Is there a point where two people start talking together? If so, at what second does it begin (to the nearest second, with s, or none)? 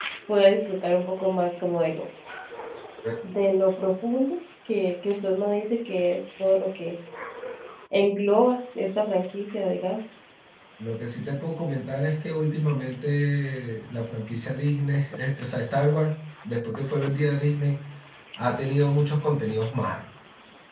none